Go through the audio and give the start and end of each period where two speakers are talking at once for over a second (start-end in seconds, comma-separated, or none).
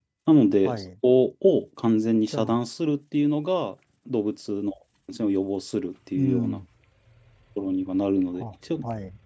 none